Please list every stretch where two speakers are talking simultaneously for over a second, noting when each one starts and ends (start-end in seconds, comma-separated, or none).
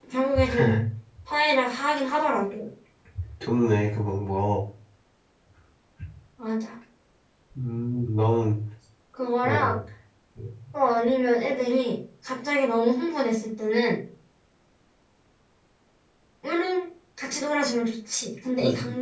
none